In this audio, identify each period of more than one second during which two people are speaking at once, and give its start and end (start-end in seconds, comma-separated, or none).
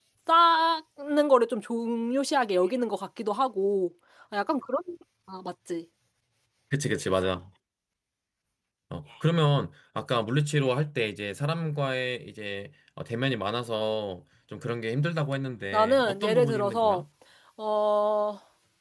15.7-17.0